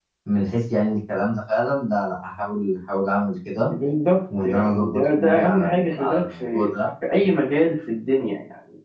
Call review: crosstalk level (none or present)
present